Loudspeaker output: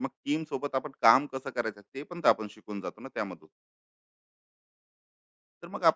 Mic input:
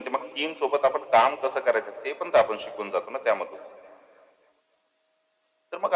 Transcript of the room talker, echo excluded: none

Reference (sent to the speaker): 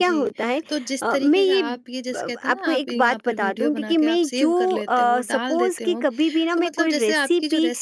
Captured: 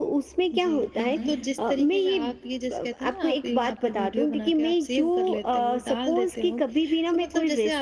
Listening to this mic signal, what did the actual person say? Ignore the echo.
हुँ, हुँ।

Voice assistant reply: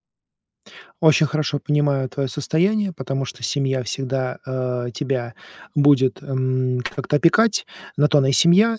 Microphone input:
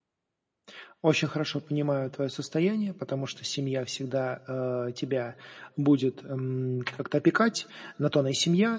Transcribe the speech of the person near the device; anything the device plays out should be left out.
none

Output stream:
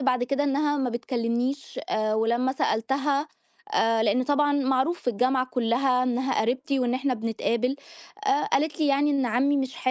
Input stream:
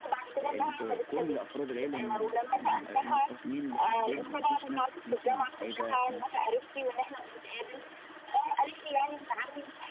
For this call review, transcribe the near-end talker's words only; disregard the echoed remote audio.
ال آآ، كل أفراد العيلة من من آه، منقسمين لحزبين؟ يعني ما فيش ناس مثلًا محايدة، في ناس

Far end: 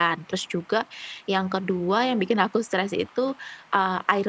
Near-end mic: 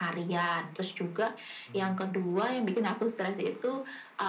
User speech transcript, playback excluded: mhm

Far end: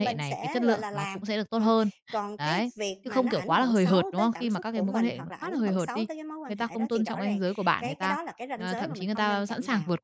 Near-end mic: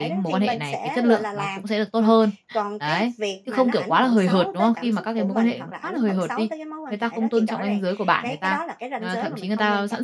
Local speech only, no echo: none

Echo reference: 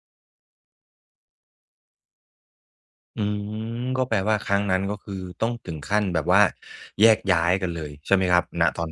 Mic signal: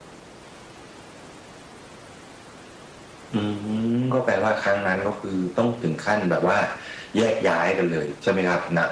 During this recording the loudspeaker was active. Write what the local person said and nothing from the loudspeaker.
none

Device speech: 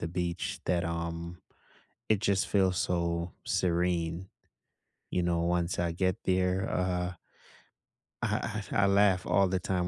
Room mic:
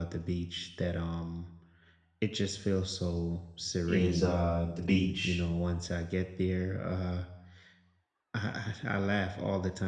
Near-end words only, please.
is uh the beach.

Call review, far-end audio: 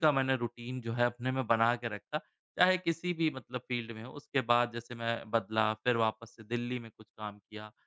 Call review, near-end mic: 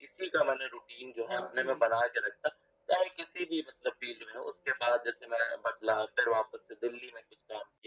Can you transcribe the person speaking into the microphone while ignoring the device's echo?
वाक़ई,

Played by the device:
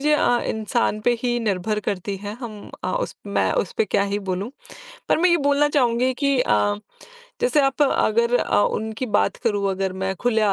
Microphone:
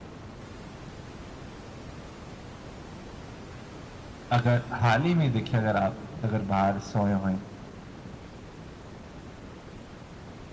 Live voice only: अगर हाल ही में देखिए अगर आप अगर बाहर सोए हों

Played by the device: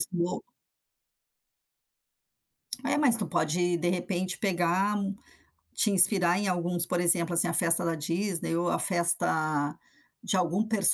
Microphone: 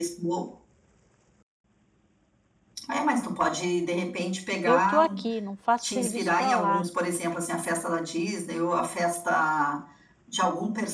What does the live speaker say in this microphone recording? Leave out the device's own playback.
Eu tô aqui, não faço serviço para lá.

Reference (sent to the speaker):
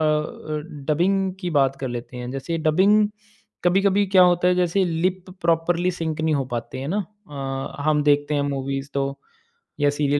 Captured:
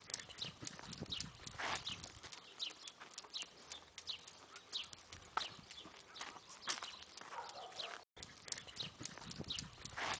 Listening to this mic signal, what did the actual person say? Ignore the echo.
none

